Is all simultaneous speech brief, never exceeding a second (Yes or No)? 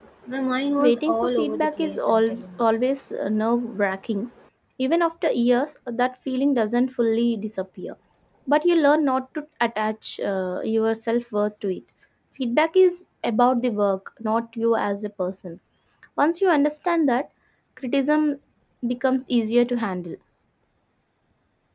No